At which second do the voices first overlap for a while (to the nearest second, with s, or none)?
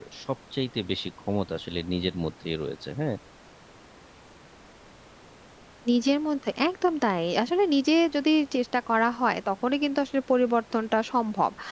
none